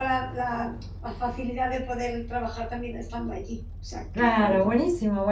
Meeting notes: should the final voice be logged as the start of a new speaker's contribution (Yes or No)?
Yes